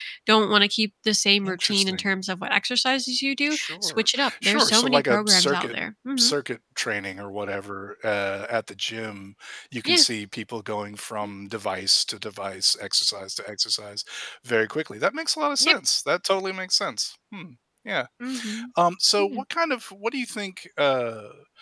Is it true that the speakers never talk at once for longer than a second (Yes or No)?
No